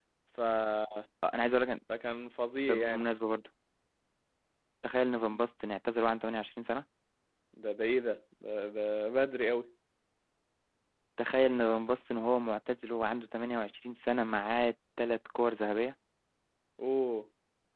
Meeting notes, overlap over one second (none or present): none